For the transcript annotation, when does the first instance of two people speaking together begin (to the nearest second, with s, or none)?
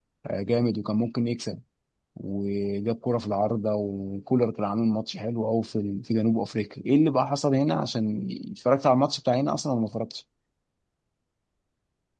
none